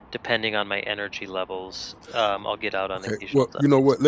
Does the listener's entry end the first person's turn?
Yes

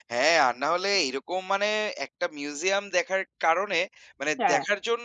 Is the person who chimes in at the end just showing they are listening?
Yes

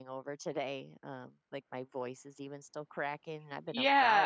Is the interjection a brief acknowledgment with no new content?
No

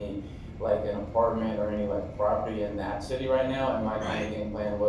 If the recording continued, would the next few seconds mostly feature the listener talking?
No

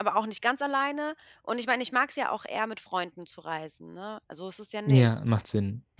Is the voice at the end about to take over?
Yes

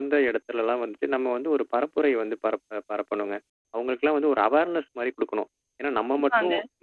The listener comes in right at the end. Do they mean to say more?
No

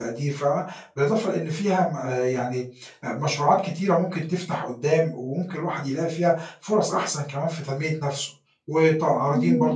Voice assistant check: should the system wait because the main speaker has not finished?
Yes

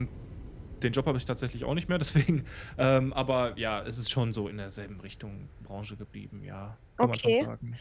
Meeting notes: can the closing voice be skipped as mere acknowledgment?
No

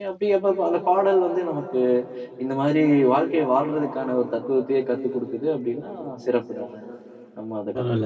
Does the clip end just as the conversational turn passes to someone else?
Yes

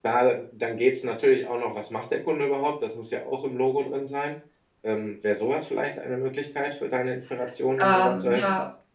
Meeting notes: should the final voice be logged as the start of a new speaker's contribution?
Yes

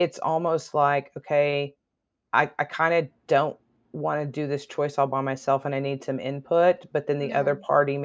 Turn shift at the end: No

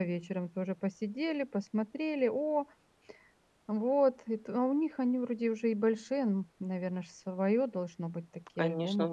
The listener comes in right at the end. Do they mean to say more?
Yes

